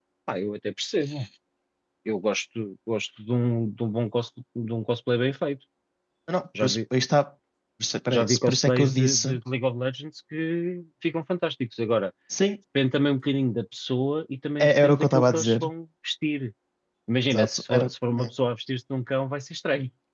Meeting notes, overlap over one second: present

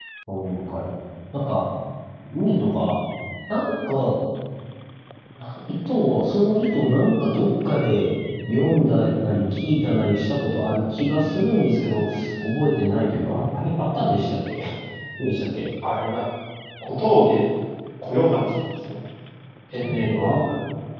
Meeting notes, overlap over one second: none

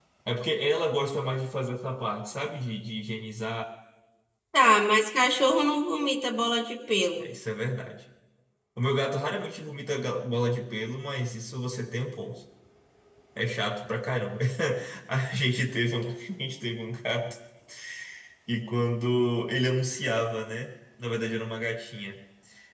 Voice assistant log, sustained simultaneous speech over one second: none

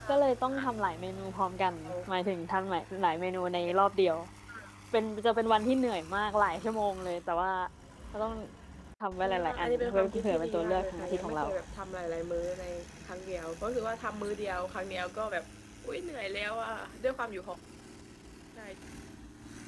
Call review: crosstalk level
present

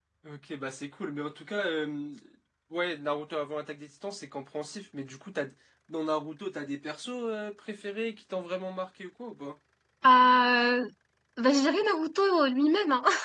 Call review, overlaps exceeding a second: none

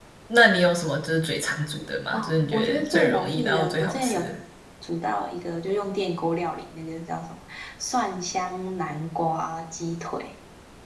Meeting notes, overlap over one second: present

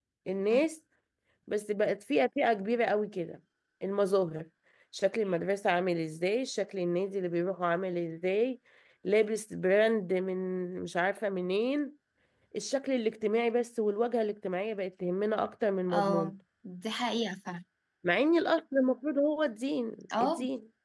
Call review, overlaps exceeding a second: none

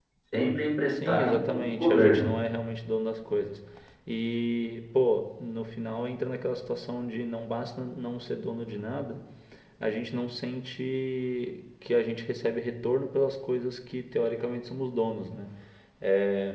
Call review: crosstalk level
present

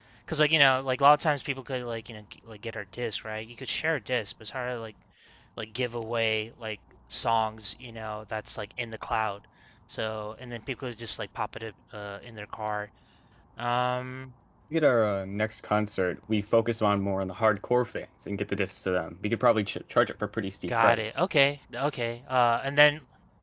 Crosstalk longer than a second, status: none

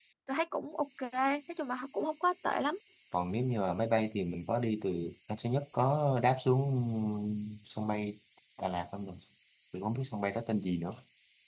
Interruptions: none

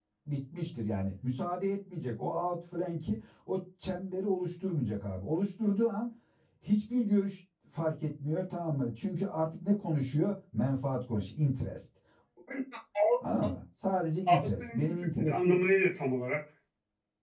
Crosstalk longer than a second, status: present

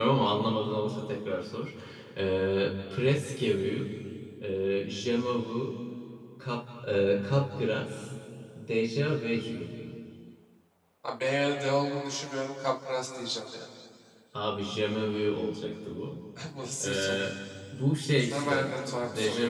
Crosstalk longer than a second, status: present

